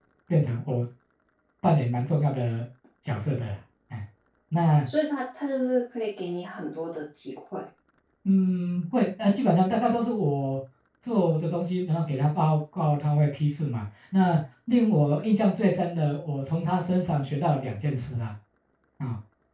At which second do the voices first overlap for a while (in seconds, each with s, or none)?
none